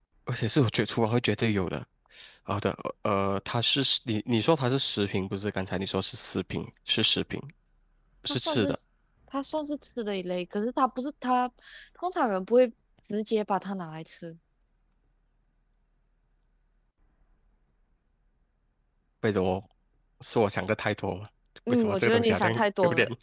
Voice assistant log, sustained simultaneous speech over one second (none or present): present